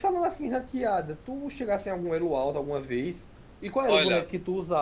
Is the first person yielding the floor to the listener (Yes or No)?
No